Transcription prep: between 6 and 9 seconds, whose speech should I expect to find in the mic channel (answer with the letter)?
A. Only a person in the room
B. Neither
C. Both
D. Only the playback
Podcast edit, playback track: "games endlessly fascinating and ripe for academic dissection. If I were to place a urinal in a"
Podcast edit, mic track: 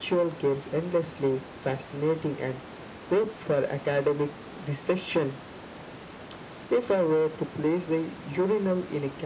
D